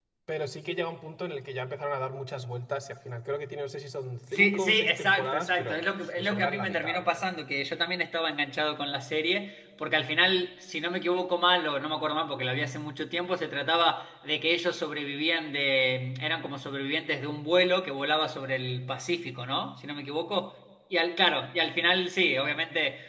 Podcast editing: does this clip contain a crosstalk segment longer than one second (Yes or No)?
Yes